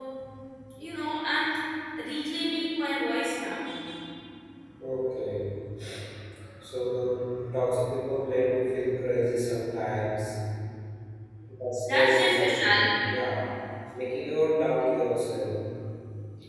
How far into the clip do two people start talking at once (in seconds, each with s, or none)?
11.9 s